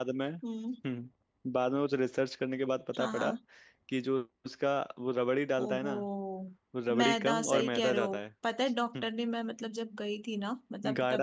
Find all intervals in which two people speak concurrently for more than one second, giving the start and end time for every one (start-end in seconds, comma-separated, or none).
7.0-8.2